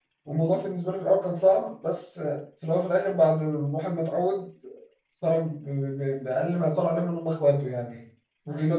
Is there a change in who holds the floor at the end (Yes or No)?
No